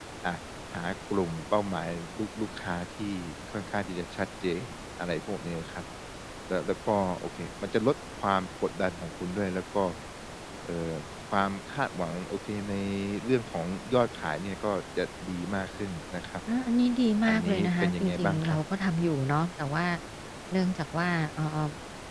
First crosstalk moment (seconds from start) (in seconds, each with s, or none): 17.3 s